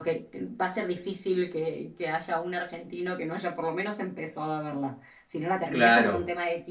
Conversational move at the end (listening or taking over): listening